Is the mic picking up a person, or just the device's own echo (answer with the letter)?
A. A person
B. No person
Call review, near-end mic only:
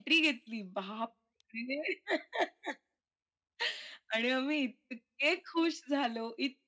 B